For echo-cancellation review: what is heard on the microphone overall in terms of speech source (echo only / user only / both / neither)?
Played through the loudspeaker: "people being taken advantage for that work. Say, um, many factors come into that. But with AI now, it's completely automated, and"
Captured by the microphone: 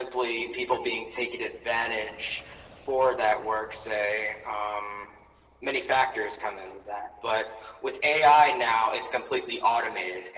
echo only